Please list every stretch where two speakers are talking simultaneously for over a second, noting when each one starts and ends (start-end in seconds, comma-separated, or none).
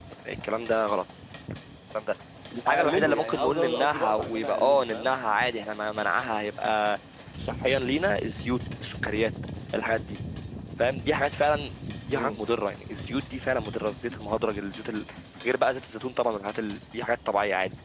2.6-5.1